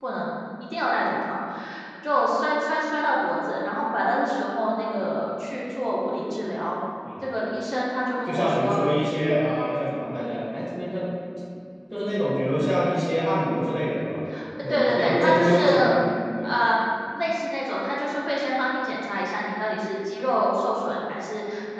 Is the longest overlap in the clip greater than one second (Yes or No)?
Yes